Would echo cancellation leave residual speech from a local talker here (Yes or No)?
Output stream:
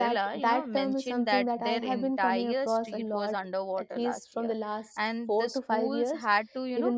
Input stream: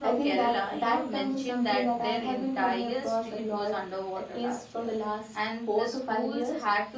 No